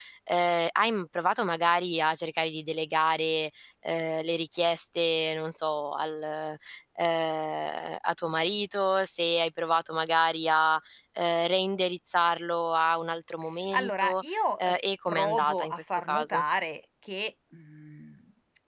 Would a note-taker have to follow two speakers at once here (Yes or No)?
Yes